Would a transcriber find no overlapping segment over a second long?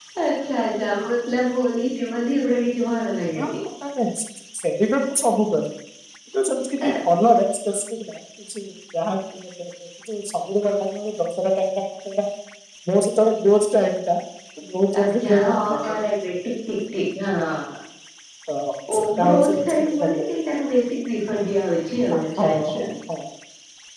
No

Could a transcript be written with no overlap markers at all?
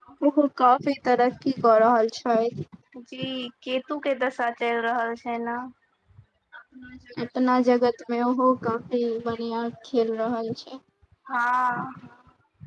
Yes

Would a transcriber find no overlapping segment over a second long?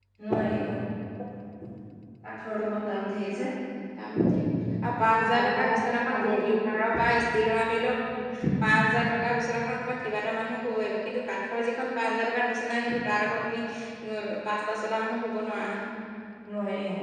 No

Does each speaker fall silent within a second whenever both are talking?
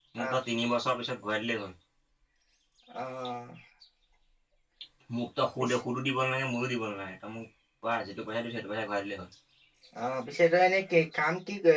Yes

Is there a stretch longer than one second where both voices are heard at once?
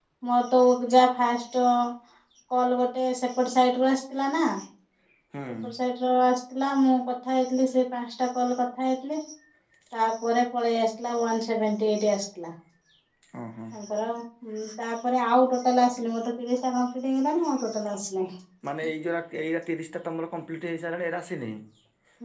No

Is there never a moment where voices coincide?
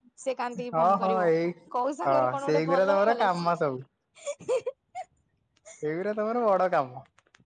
No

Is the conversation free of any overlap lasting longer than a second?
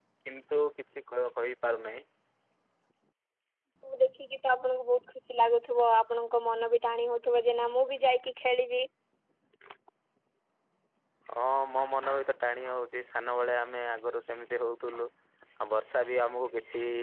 Yes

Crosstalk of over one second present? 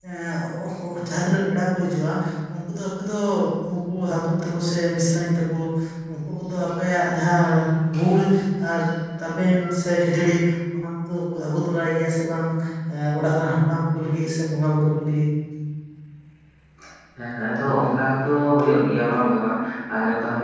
No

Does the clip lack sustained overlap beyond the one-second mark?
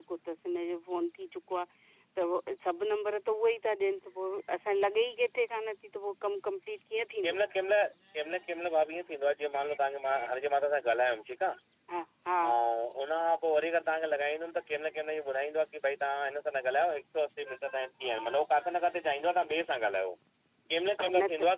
Yes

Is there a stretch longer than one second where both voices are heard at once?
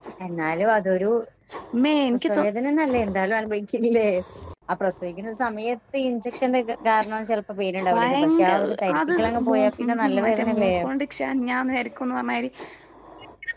Yes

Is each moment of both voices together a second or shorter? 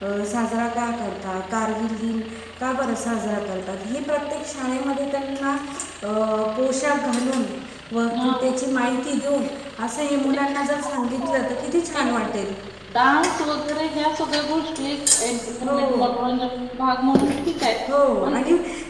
Yes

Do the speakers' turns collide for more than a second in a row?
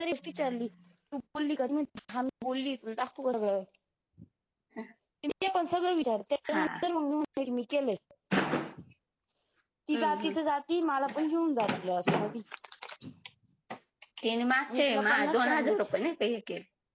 Yes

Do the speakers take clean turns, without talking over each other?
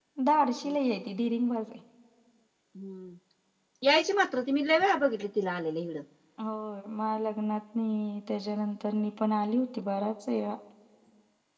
Yes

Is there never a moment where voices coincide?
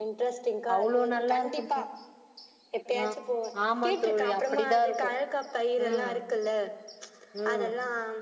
No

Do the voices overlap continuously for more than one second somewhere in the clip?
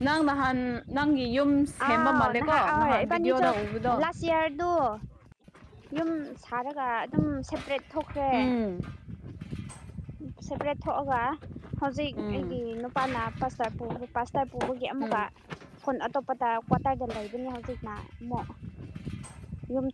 Yes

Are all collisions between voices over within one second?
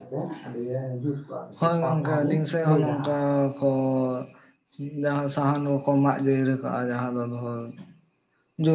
No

